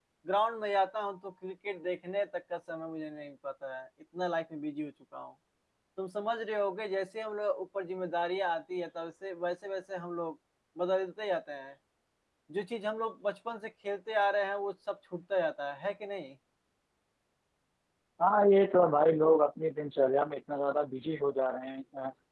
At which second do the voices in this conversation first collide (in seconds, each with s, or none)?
none